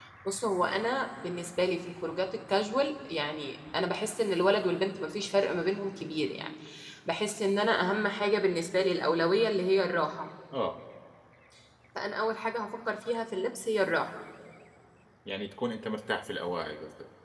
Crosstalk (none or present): none